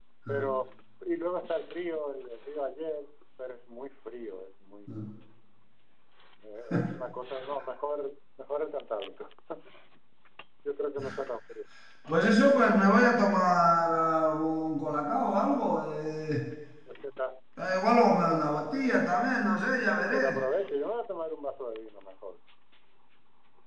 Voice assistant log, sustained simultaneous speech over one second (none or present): none